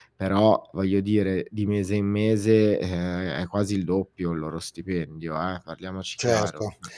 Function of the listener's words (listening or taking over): taking over